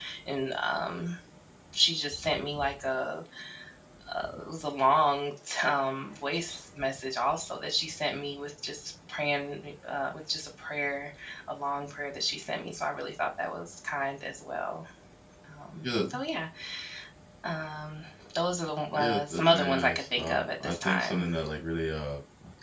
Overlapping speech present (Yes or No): Yes